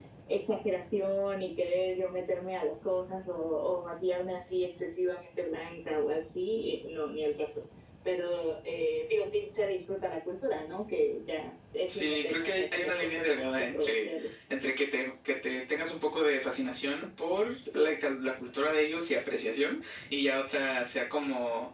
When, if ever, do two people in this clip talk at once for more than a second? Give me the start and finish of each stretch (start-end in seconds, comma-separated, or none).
11.9-14.3